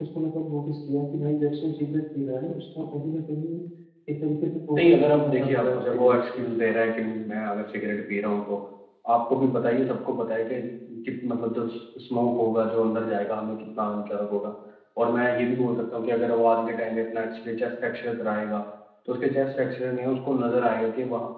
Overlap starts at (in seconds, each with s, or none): 4.8 s